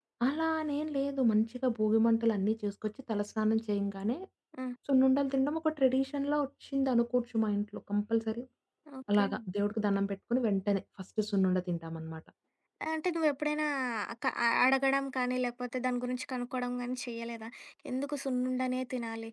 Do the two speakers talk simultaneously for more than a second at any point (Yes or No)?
No